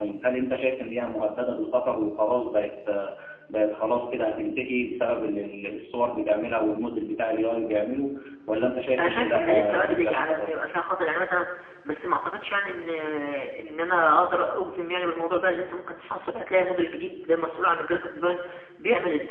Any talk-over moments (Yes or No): Yes